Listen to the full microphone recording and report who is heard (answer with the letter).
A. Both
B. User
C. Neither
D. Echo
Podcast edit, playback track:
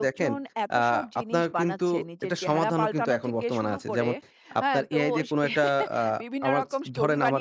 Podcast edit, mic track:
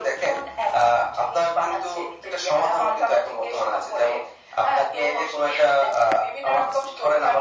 D